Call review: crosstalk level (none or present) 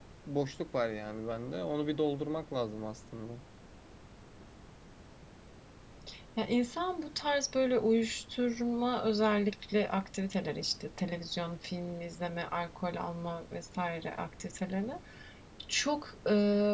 none